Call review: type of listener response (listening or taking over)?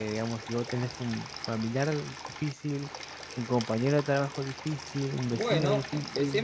taking over